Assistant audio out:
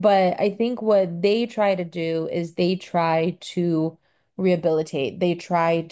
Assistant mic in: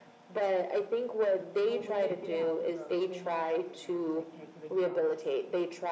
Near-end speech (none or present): present